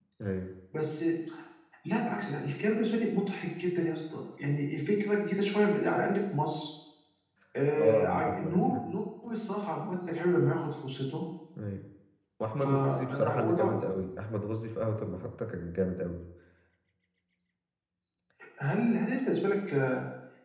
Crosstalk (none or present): present